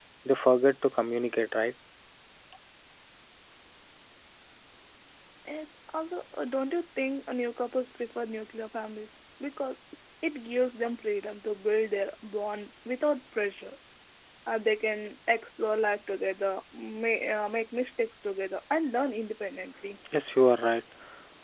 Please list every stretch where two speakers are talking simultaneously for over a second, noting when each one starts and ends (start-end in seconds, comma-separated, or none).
none